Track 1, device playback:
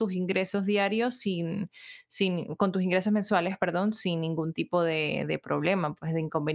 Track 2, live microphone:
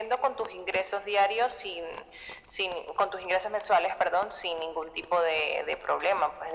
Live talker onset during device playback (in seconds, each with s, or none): none